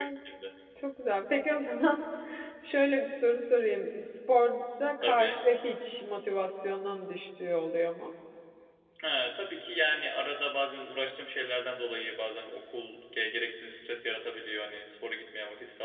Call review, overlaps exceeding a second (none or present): none